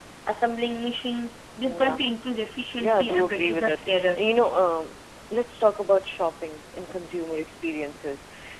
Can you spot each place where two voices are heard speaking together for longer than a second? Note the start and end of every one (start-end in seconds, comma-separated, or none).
2.8-4.2